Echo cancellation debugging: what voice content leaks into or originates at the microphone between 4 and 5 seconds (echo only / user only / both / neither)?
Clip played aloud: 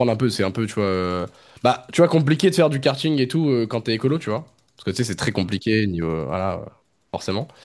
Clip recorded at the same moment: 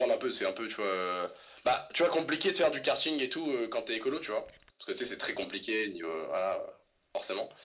echo only